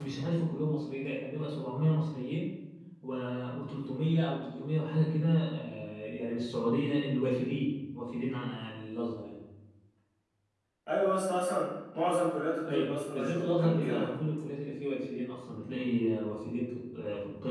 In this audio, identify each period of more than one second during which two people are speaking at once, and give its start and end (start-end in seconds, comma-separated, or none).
12.7-14.1